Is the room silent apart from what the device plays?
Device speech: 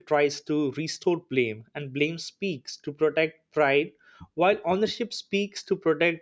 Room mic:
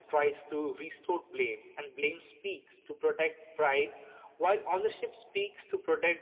Yes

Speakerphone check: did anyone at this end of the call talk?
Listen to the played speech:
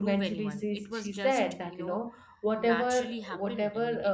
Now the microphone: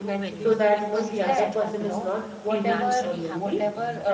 Yes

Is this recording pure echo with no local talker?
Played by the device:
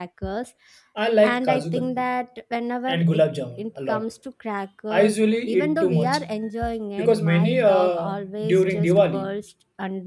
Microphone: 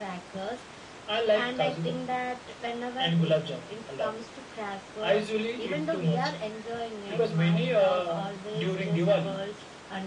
Yes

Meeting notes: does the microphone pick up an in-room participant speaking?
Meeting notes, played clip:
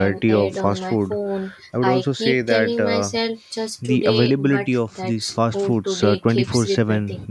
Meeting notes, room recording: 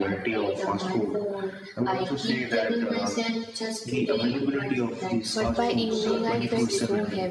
Yes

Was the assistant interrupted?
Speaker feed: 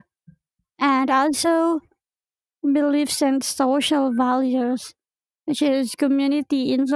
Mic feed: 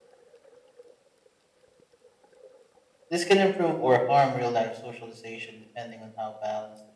Yes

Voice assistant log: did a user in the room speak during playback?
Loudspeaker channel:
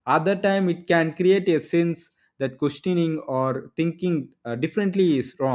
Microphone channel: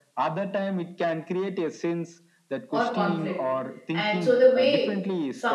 Yes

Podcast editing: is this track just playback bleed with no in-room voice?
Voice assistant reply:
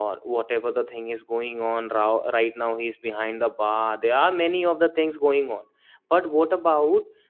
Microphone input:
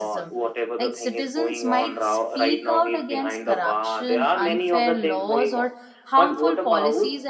No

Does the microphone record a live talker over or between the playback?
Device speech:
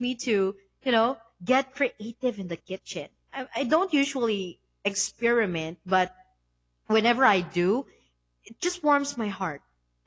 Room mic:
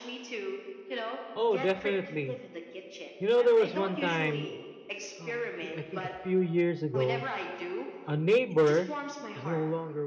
Yes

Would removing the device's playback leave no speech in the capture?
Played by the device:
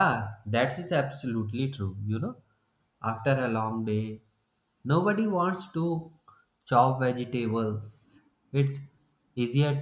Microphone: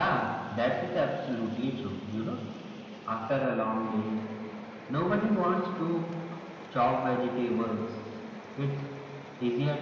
Yes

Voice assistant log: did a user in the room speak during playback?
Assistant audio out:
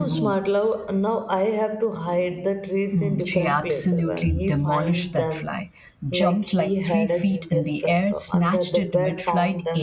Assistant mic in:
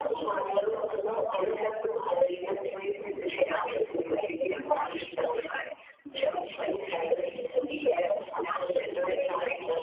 No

